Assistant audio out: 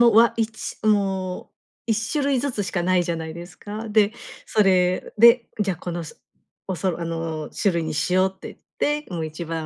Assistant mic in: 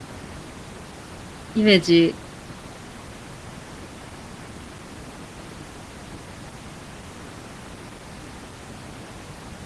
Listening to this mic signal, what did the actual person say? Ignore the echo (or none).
イメージ